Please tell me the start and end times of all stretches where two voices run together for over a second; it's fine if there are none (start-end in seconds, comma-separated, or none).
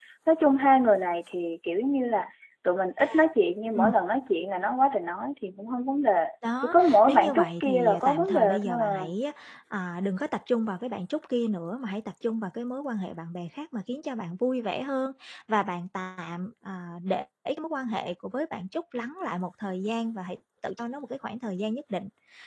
6.6-9.2